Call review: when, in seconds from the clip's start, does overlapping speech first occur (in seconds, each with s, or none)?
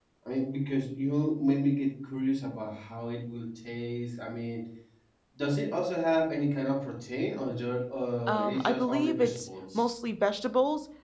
8.3 s